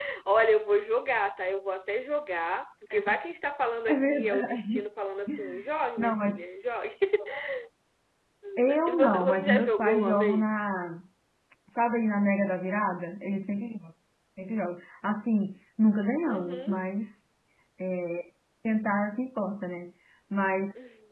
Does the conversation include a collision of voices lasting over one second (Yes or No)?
Yes